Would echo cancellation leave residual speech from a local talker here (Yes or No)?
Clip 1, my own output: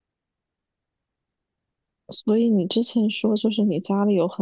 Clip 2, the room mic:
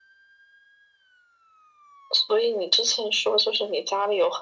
No